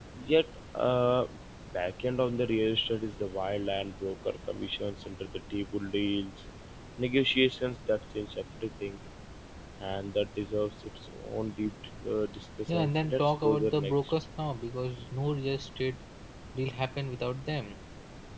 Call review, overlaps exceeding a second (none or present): present